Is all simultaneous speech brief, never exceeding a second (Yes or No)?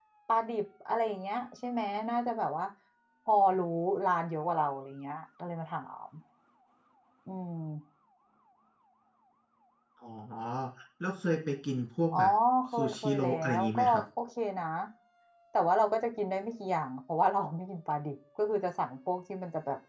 No